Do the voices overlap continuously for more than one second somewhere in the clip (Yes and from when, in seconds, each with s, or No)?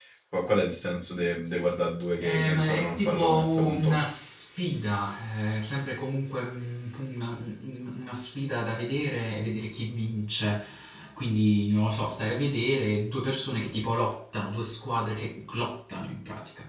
Yes, from 2.2 s